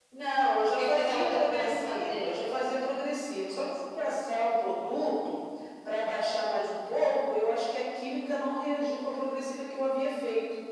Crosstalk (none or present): present